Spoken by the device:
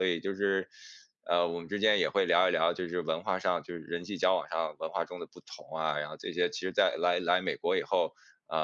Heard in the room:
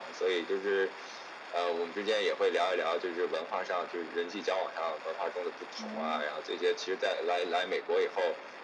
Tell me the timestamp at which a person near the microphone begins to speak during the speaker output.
5.8 s

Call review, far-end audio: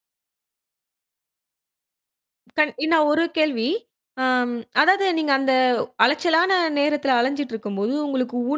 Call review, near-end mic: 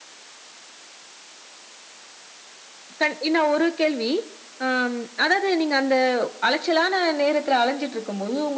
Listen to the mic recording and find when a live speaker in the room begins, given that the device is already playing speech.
none

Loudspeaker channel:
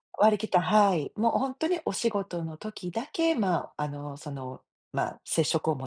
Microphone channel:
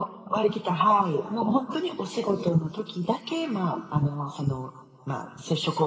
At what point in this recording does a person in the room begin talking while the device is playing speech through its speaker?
none

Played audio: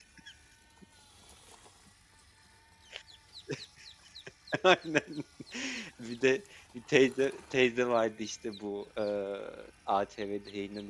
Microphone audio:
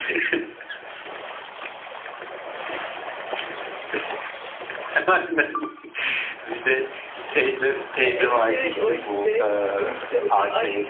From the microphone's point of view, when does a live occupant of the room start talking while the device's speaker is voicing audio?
7.9 s

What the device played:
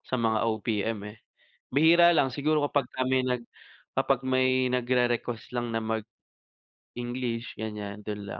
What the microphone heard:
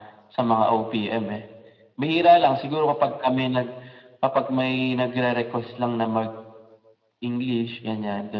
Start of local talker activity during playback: none

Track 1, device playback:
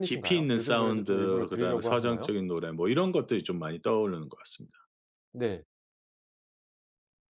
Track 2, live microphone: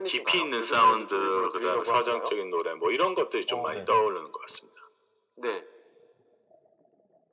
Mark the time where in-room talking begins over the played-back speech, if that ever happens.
3.5 s

